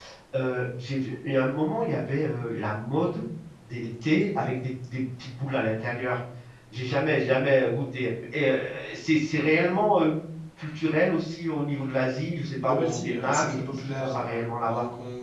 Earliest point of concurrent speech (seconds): 12.6 s

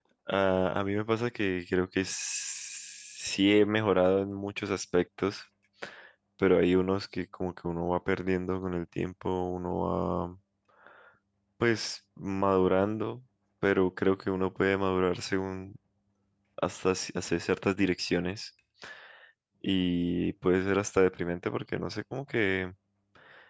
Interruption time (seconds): none

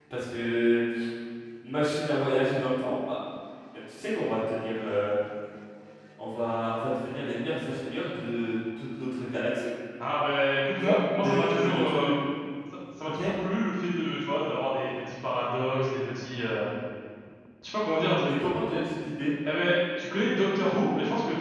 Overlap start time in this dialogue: 10.8 s

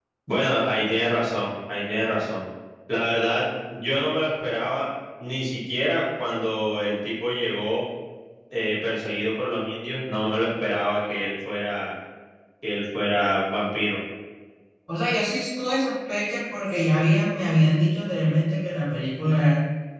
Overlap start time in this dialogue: none

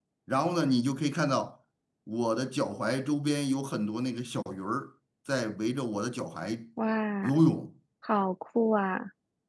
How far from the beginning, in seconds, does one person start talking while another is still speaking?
none

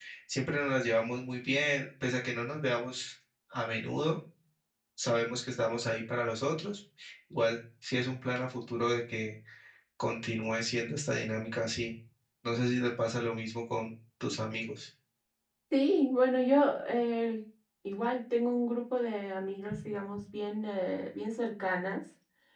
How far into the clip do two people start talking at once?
none

